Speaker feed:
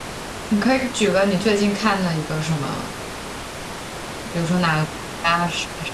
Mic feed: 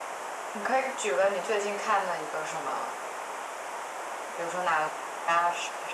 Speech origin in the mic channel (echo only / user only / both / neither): echo only